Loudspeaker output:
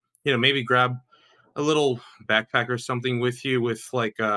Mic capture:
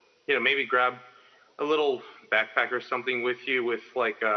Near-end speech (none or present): none